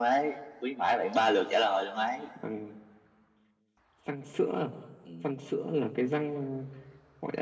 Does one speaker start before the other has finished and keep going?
No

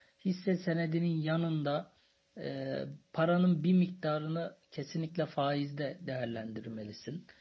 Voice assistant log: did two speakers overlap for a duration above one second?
No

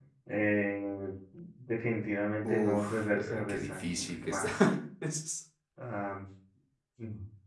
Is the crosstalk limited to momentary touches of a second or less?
No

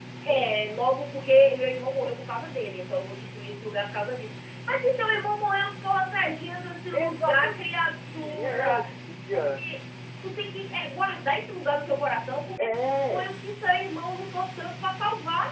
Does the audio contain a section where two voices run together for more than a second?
Yes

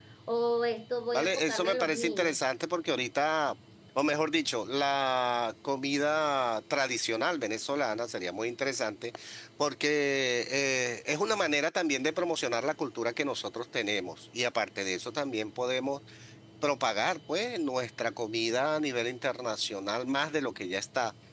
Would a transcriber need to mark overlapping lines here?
Yes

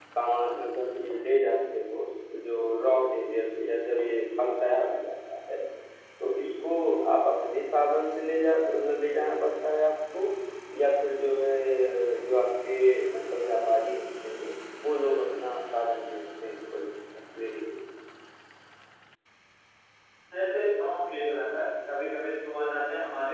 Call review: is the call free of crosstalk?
Yes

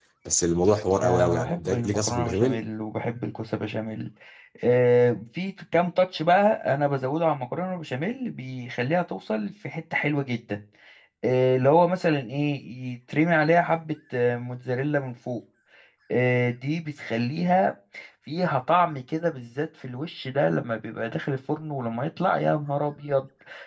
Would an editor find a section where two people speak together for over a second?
Yes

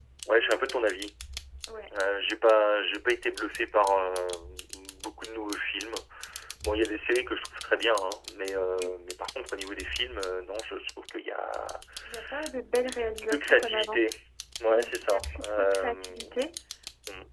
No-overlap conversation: No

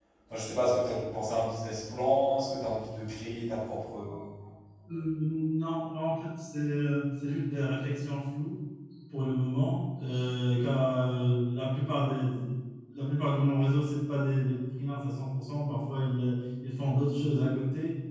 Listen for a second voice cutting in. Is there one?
No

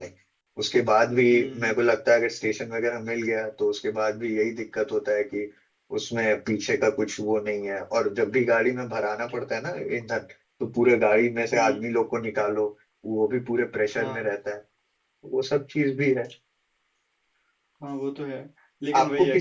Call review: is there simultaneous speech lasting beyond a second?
No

